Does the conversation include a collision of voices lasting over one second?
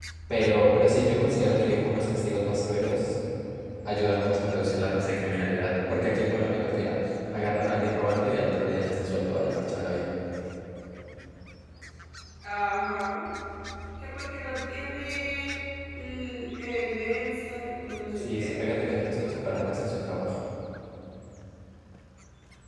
Yes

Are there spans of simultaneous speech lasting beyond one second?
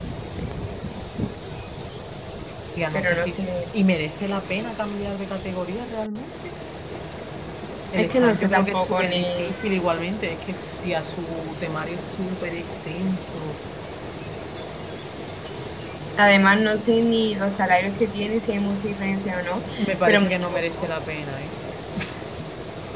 Yes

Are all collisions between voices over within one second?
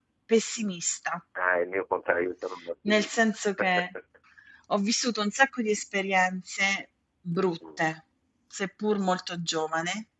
Yes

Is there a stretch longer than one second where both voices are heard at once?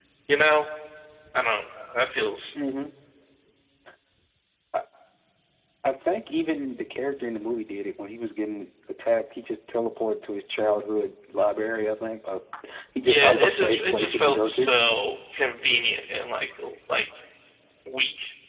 Yes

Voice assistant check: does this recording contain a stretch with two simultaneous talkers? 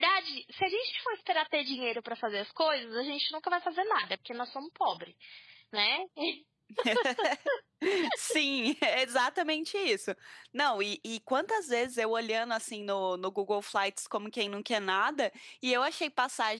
No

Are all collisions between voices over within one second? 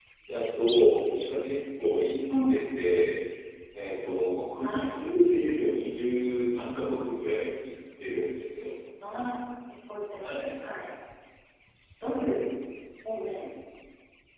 Yes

